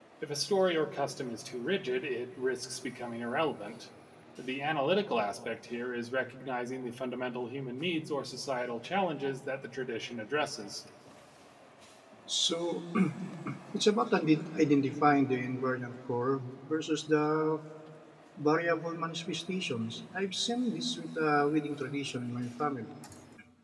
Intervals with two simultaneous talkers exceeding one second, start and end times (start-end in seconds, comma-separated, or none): none